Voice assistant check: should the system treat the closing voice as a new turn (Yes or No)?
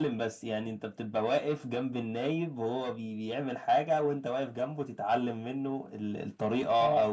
No